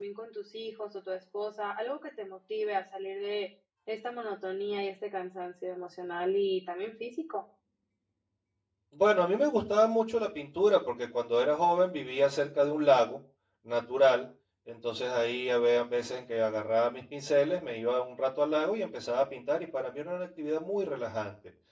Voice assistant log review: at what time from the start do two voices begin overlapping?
none

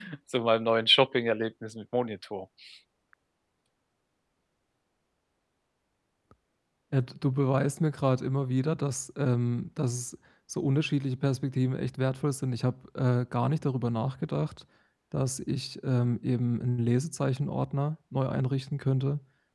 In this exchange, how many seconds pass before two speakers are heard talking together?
none

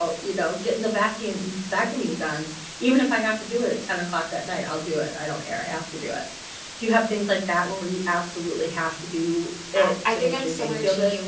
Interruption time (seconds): 10 s

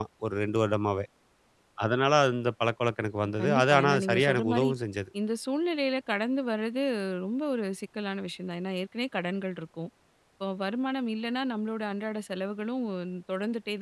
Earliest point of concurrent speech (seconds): 3 s

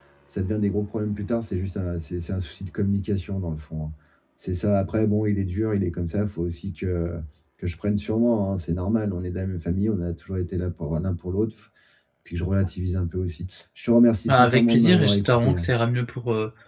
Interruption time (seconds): 14 s

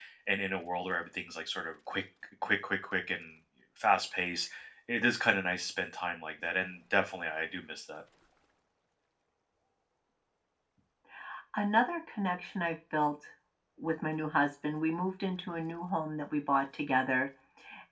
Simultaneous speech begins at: none

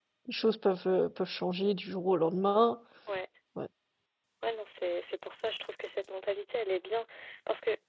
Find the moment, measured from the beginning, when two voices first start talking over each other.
none

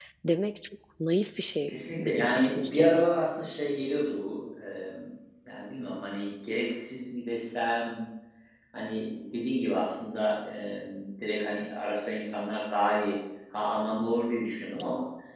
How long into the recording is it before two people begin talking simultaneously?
2 s

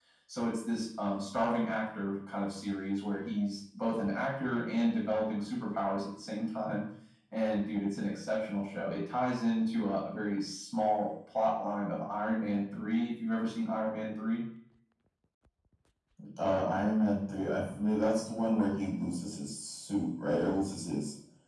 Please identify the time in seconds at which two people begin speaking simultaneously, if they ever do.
none

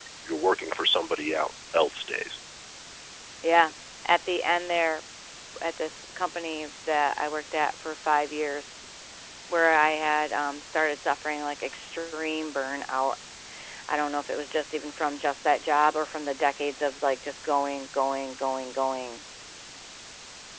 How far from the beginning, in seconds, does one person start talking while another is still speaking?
none

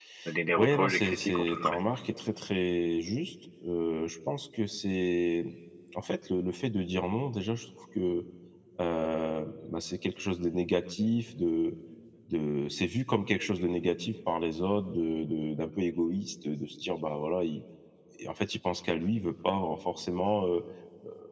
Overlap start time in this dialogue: 1 s

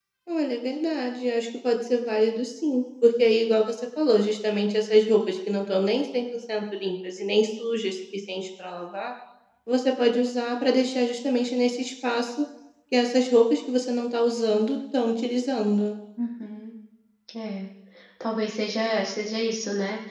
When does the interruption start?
none

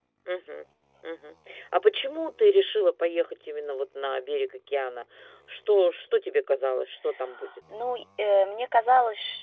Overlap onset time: none

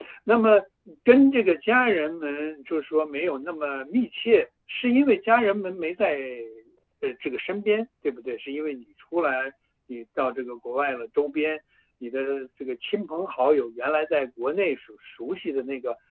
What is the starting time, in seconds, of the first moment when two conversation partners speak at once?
none

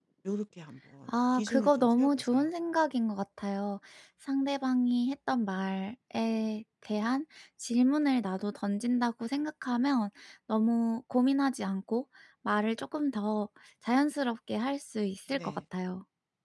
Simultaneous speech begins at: 1 s

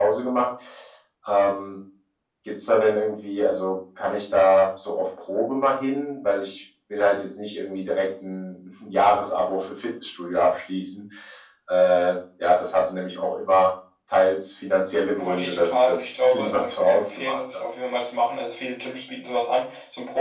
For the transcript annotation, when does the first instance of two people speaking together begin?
15 s

